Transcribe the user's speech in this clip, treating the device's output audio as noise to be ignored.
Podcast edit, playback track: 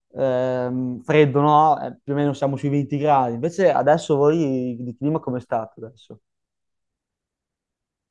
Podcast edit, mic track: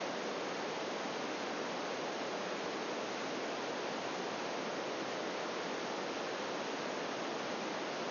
none

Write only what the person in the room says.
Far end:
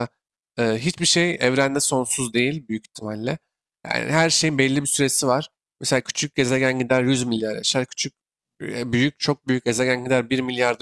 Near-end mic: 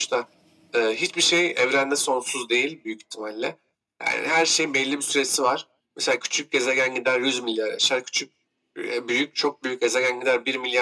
none

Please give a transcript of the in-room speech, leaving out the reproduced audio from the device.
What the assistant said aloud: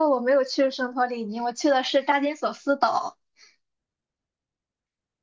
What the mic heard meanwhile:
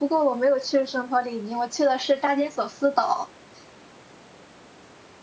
none

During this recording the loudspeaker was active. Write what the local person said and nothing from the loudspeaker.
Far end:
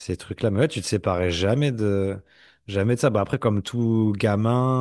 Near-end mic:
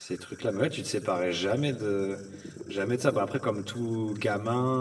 none

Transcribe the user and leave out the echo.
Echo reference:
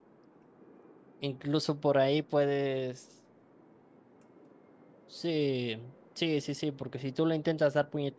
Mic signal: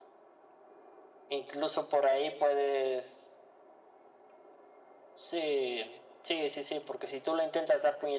none

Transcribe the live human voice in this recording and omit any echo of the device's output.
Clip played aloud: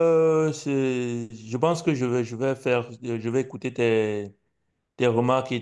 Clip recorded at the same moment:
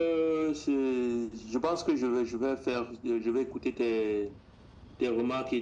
none

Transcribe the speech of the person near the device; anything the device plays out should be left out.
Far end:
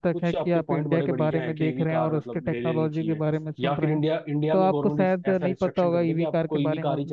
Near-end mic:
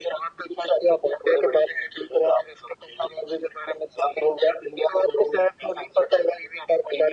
none

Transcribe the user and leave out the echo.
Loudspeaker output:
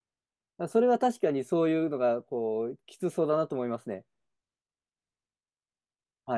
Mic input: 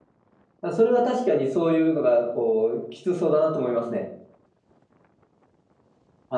none

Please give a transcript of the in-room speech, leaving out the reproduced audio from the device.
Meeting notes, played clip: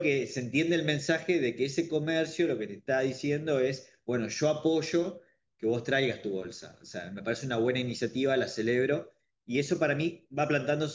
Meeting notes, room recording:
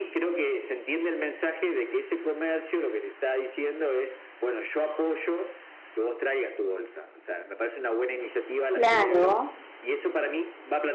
Claro.

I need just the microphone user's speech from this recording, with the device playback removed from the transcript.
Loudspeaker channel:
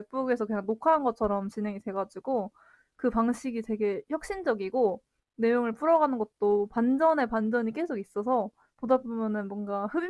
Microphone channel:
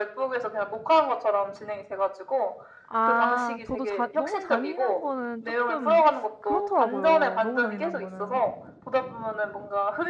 아 저도 자 너무 잔인한 거는 조금 그렇더라고요, 너무 잔인한 거는.

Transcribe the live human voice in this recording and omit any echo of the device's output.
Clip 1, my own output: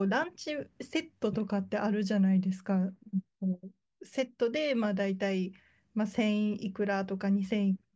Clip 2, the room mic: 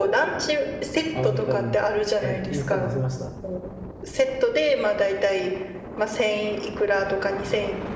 本当に。え、インスタ載せました。

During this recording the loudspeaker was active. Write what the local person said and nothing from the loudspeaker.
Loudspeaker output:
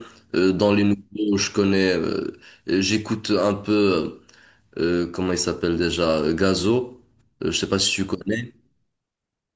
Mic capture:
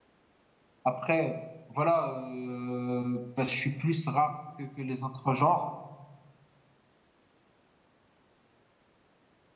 Après, voilà, euh, ben, je suis plus rap que, que les autres genres.

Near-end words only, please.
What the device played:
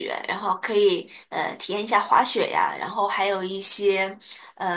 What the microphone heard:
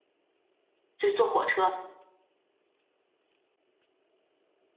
就是坐火车。

